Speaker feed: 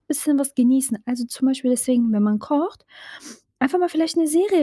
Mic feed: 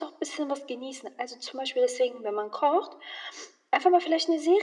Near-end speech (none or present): none